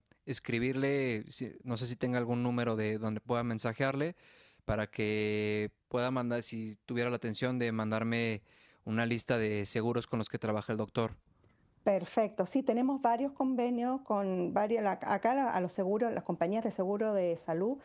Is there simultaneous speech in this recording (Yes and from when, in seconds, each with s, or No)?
No